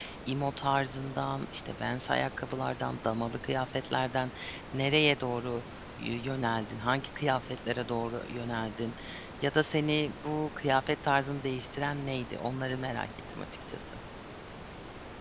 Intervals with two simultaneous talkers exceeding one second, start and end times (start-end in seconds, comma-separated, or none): none